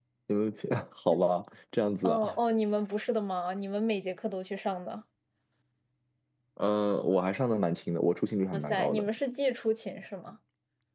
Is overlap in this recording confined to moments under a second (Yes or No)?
Yes